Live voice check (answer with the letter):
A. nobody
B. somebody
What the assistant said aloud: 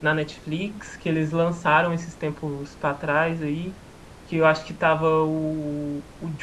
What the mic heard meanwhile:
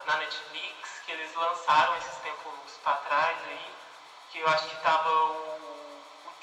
A